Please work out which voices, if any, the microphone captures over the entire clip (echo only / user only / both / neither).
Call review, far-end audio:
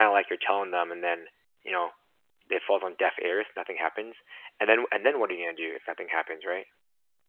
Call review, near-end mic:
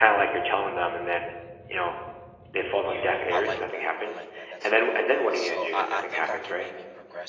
both